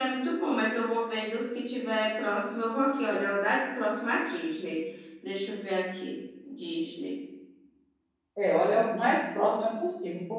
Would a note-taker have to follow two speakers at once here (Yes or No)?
No